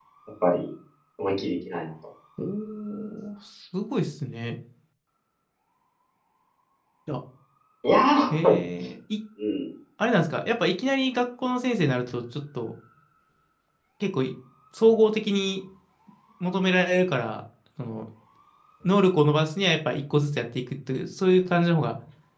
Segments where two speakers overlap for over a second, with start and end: none

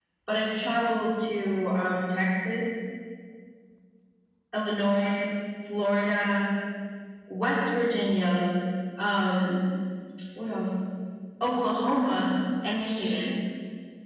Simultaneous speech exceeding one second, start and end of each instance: none

